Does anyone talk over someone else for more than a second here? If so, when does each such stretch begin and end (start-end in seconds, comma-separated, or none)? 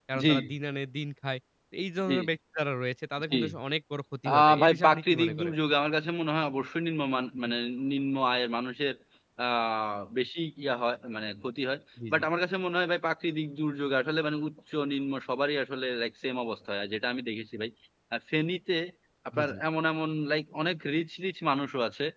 4.3-5.5